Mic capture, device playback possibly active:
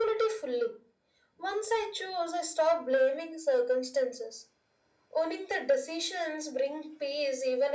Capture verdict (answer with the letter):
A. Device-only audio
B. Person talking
A